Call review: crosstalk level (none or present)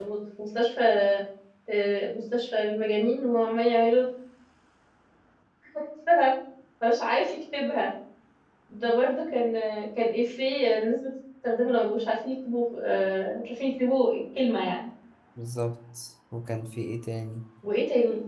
none